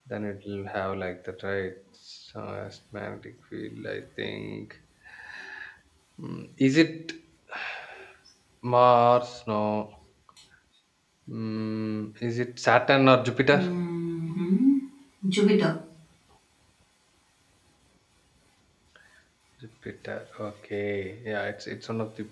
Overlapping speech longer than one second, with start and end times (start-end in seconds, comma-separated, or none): none